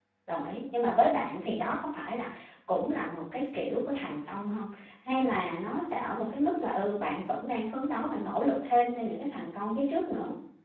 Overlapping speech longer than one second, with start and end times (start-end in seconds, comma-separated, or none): none